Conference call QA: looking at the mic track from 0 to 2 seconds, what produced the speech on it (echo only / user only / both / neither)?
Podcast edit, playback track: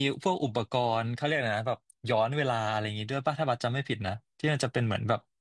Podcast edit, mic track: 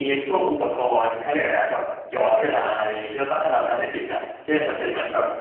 echo only